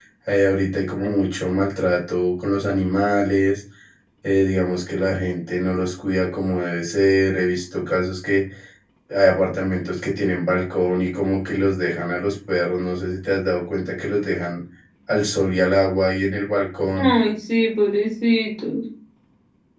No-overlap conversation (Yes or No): Yes